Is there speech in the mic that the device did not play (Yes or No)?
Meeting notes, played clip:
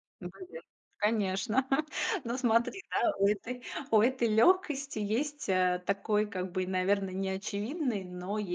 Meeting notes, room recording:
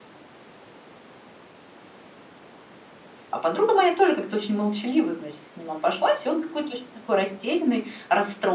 Yes